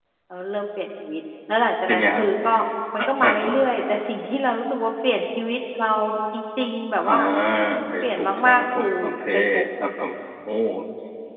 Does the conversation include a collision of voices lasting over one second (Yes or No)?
Yes